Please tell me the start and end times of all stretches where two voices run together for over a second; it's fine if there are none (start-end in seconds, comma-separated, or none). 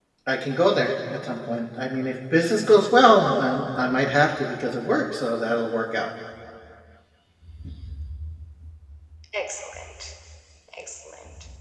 none